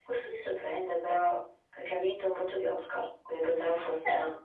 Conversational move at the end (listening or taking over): listening